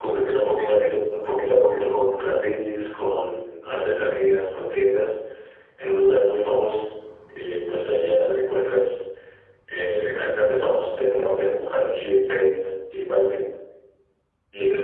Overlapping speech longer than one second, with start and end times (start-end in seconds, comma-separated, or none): none